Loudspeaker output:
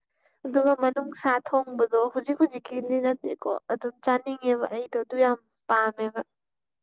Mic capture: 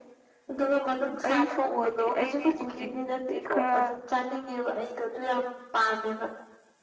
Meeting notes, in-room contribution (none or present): present